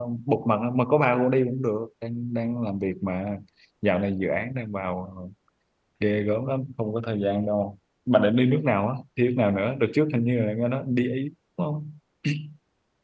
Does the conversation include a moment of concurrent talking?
No

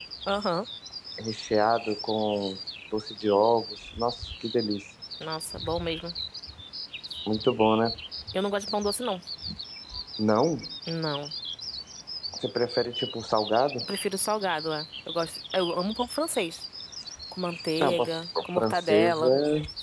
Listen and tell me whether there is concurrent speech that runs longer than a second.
Yes, from 17.8 s

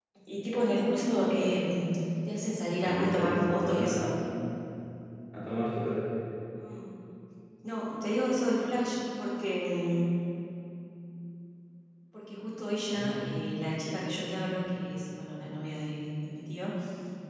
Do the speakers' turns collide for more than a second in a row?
Yes, from 2.8 s

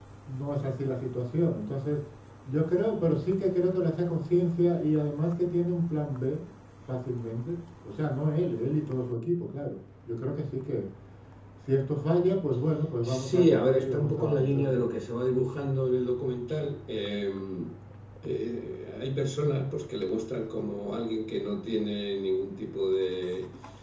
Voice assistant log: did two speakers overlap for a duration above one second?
Yes, from 13.0 s

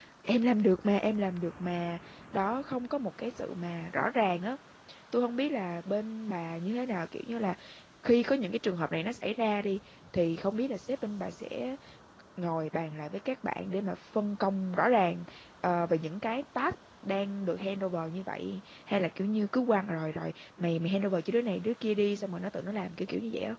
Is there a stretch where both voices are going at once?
No

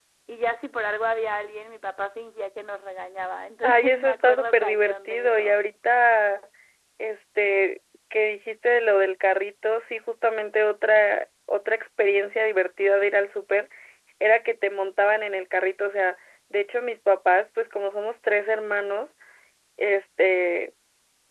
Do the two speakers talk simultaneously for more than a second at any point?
Yes, from 3.6 s

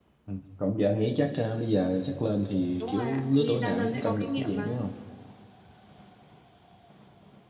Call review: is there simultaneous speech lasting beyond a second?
Yes, from 2.8 s

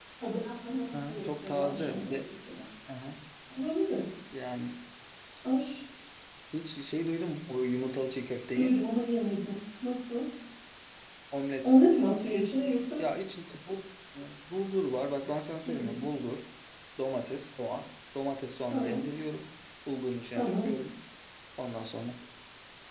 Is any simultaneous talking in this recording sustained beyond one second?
Yes, from 0.9 s

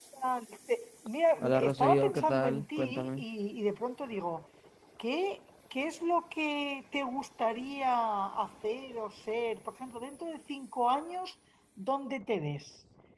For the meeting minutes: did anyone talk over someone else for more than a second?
Yes, from 1.4 s

